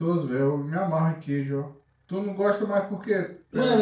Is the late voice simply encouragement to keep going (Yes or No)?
No